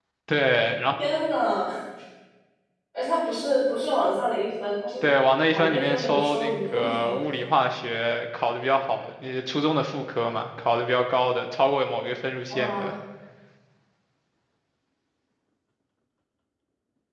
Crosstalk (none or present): present